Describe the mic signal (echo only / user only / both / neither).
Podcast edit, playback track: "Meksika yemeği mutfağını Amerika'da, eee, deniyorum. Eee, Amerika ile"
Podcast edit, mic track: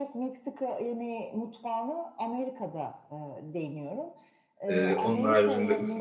both